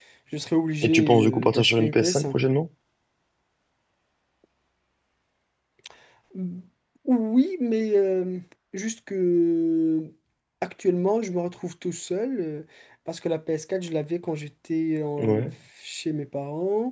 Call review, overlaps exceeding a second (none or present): present